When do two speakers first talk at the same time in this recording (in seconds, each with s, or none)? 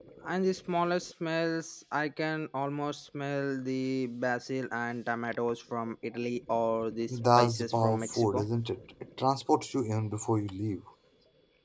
7.1 s